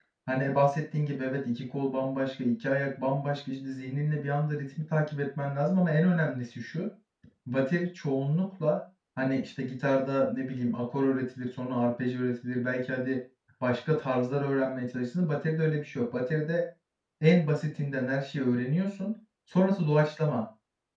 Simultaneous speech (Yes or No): No